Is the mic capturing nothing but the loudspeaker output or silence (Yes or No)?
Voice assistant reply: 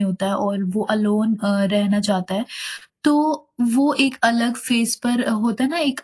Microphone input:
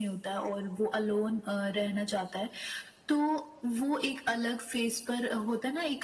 Yes